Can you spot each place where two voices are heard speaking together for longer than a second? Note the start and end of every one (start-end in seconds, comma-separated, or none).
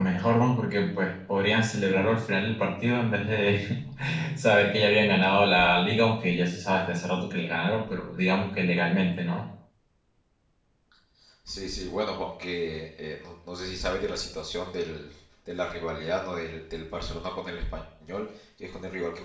none